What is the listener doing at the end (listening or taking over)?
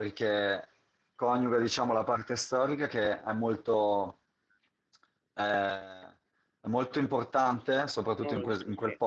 listening